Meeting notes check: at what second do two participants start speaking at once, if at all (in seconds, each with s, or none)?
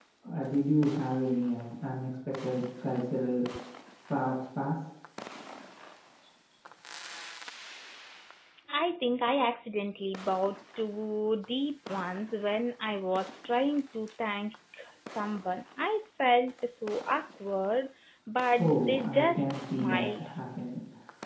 18.6 s